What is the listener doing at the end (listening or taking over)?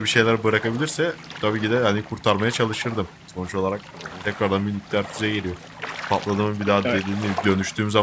listening